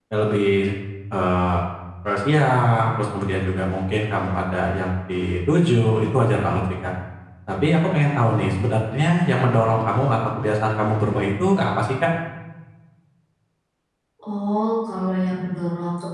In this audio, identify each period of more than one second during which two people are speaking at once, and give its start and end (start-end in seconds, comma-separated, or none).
none